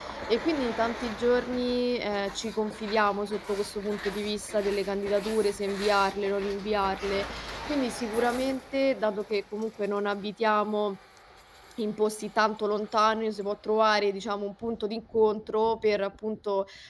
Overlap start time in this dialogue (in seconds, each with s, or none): none